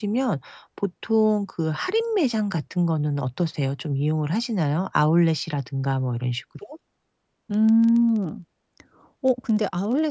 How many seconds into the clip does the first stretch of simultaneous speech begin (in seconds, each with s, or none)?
none